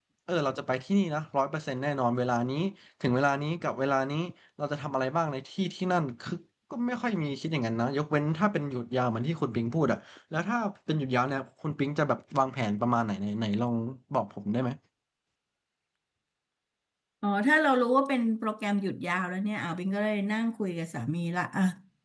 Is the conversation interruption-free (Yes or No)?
Yes